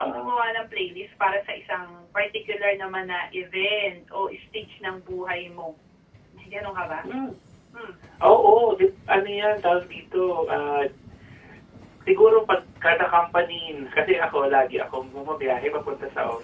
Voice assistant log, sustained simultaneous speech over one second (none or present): none